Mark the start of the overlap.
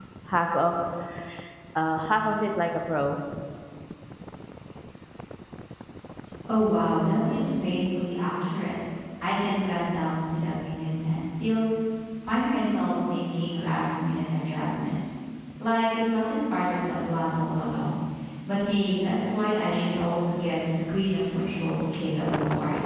none

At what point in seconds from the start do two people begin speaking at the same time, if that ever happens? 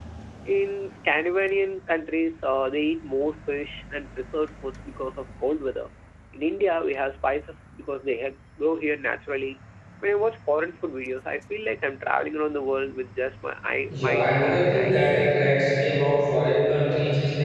13.9 s

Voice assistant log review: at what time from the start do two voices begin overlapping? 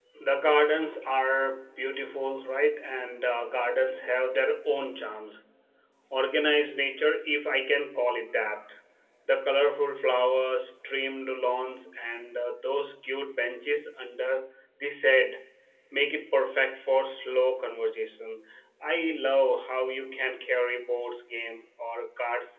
none

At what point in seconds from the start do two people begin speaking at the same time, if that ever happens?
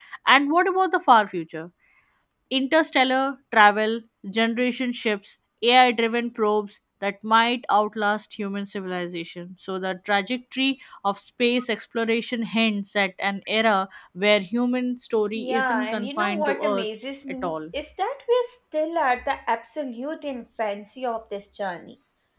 15.4 s

